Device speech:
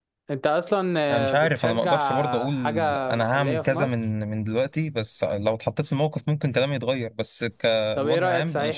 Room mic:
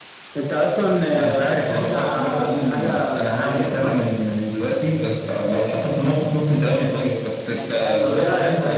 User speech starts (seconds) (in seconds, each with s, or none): 7.5 s